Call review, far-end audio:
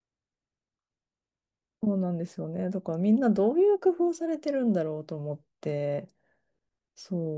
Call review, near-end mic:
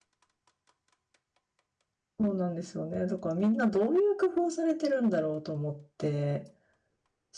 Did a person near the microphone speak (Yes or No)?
No